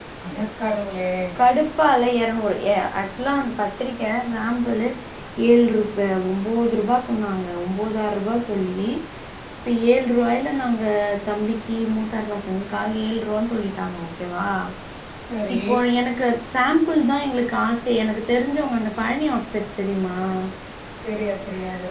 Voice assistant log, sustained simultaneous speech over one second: none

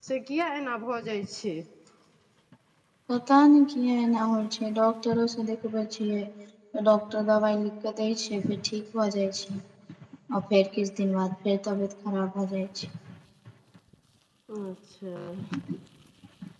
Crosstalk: none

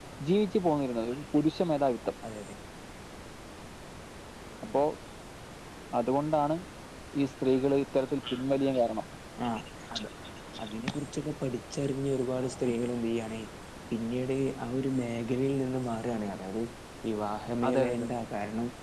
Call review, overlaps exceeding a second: none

